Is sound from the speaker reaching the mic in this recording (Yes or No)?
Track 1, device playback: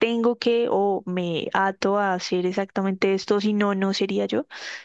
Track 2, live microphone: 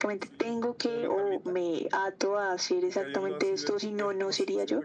Yes